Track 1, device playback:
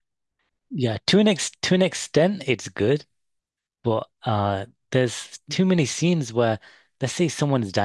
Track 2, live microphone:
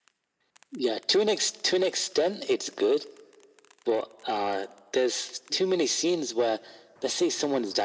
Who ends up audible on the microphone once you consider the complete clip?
echo only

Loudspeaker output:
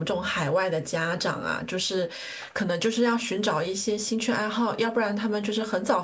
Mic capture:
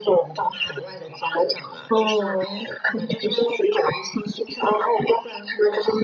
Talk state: both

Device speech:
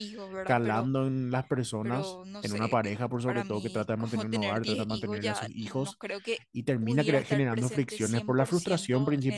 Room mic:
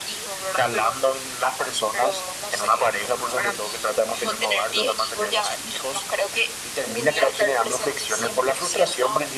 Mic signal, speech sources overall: echo only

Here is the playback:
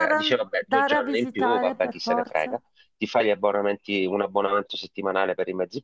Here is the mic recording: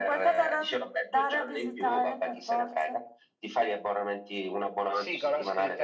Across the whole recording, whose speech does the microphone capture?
both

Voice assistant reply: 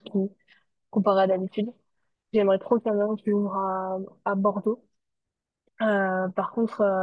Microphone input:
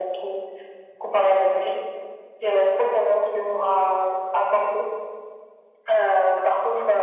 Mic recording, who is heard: echo only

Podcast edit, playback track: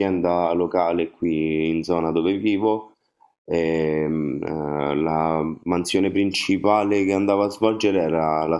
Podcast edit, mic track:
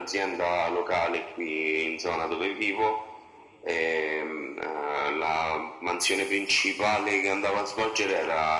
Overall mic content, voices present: echo only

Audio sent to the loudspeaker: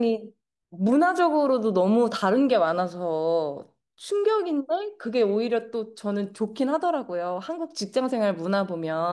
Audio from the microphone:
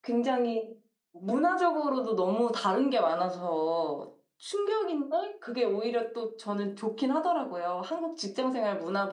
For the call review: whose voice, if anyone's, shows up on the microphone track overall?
echo only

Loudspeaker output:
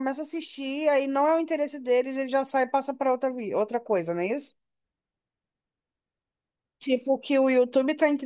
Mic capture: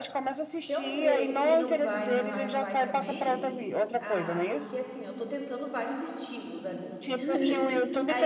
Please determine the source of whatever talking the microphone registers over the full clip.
both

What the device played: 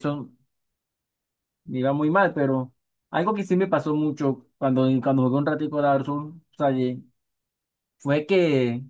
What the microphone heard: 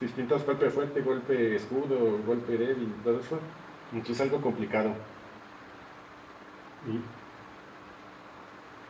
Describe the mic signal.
user only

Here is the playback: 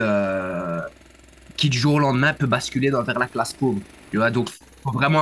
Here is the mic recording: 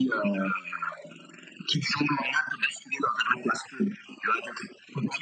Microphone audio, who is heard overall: echo only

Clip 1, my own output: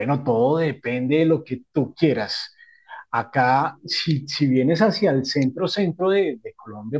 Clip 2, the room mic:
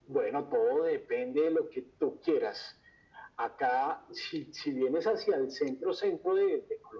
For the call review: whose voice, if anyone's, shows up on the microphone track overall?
echo only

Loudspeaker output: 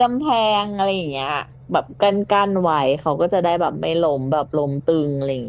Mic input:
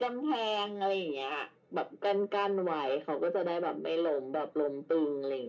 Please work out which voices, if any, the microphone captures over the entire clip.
echo only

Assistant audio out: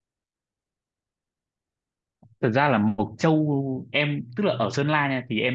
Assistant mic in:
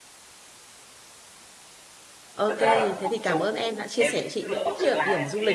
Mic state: both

